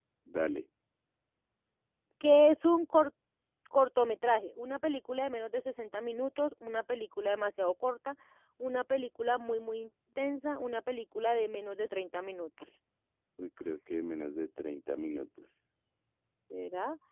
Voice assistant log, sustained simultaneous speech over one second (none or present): none